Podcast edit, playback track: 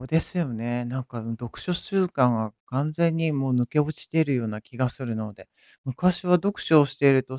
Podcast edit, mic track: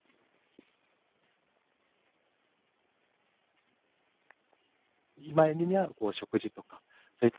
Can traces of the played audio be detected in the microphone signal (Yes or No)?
No